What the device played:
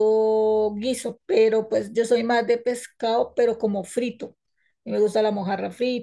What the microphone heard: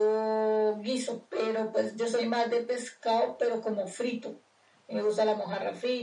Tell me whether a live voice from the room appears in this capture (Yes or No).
No